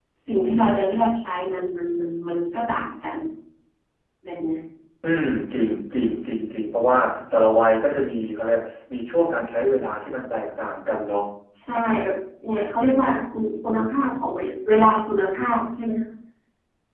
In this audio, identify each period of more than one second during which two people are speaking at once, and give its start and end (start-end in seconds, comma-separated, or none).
none